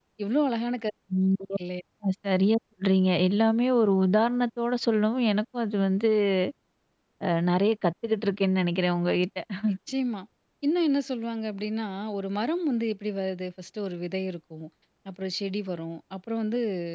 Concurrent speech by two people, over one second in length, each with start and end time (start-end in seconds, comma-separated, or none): none